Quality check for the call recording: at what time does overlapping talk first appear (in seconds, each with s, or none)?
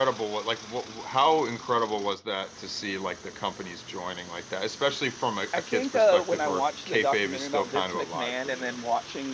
5.5 s